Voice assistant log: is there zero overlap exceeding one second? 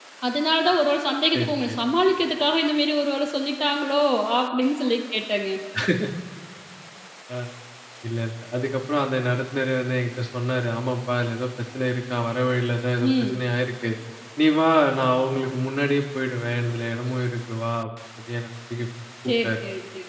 Yes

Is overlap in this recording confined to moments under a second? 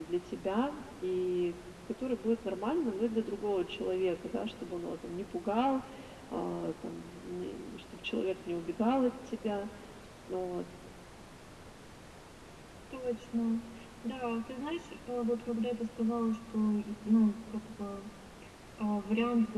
Yes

